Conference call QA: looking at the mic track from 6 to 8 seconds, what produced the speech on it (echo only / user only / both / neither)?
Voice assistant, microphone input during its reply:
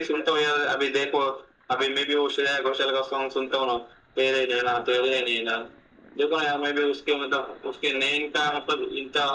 echo only